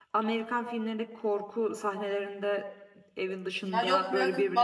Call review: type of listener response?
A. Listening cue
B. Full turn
B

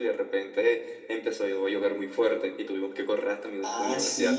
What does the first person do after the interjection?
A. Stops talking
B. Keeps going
A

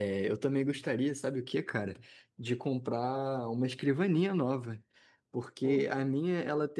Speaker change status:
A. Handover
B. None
B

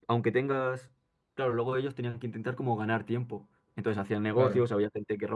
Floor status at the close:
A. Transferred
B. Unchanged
B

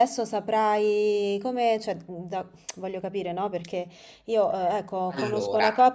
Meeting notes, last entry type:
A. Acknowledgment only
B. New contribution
A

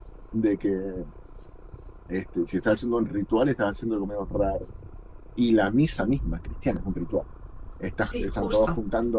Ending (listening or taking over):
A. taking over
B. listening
B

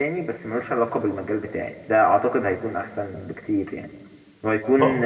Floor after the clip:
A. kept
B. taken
A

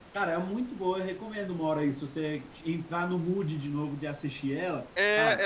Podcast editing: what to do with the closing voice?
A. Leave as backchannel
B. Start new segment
B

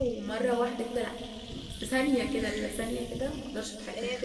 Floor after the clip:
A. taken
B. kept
A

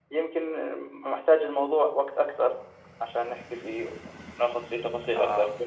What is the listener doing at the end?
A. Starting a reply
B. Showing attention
B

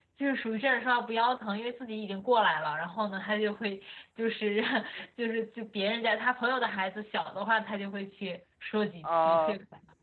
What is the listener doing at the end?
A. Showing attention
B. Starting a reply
B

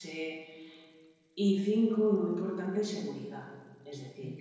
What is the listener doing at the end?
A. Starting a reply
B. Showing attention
B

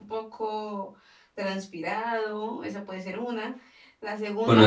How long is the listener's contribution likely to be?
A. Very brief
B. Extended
A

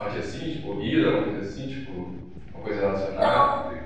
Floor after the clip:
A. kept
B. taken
B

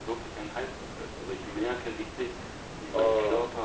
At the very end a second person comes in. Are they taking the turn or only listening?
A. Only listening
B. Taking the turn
A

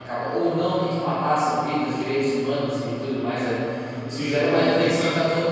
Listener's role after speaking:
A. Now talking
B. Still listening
B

